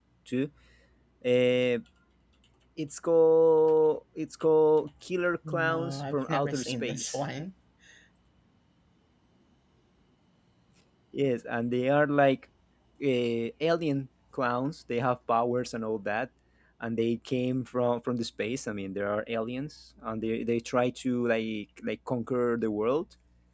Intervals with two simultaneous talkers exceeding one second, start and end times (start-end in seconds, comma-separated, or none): 5.5-7.2